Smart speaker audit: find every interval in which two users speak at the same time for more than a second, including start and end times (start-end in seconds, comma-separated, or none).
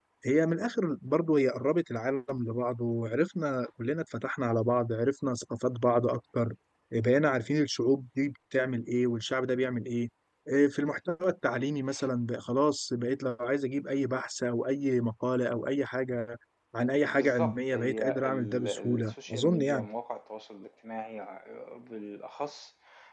17.1-19.9